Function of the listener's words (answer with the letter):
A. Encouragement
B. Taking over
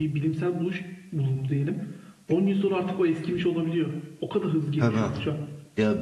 B